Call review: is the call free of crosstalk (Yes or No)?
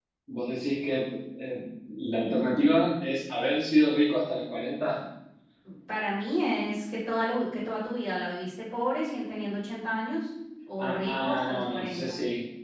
No